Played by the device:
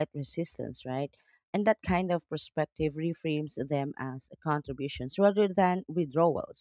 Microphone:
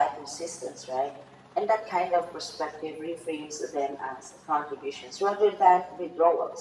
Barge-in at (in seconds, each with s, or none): none